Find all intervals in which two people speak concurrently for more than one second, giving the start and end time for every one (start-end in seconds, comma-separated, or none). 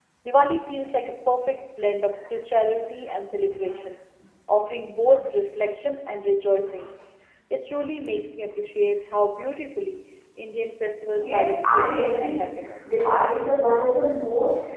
11.2-12.4